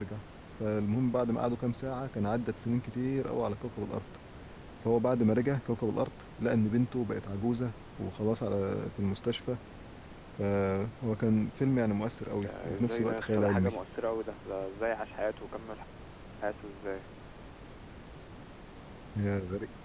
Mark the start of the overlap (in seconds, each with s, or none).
12.3 s